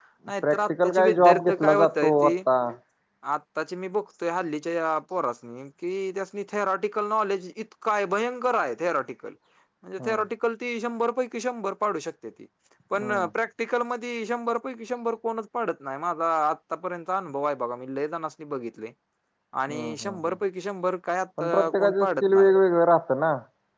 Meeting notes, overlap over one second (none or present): present